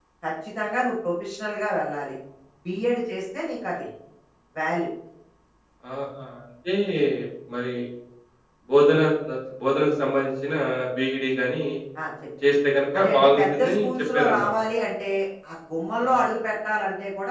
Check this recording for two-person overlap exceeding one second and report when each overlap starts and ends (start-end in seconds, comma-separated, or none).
13.0-14.5